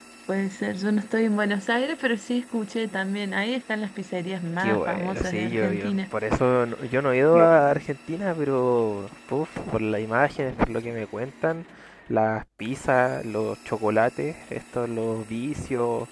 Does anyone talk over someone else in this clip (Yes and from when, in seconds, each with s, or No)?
Yes, from 4.6 s